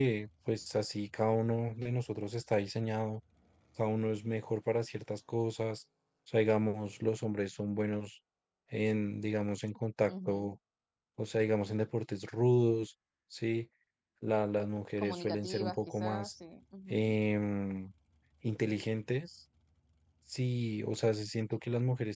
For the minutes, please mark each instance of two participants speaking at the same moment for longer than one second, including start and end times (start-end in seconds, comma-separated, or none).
15.0-16.3